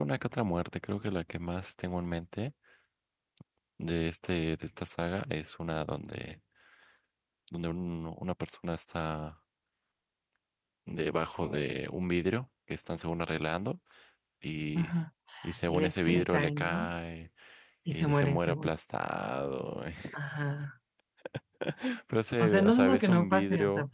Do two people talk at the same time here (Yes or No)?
Yes